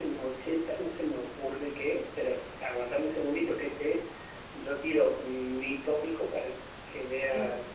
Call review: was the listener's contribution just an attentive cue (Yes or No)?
Yes